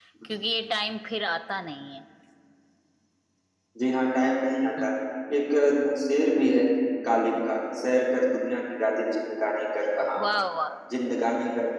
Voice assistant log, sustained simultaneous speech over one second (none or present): none